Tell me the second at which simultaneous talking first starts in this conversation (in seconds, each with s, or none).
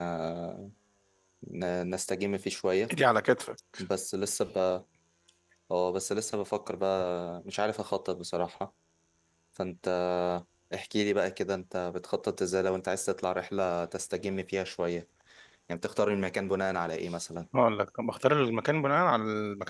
none